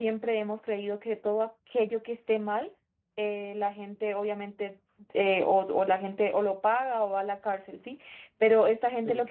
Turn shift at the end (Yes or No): No